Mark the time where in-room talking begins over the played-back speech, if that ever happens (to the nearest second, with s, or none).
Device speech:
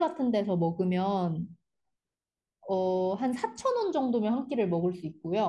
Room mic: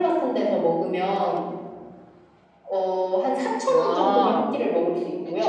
4 s